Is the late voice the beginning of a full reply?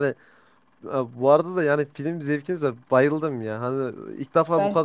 No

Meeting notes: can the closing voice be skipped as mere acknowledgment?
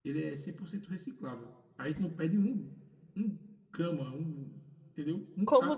No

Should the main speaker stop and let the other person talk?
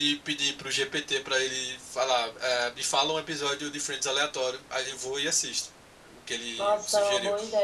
Yes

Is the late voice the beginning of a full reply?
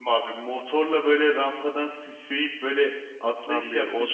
Yes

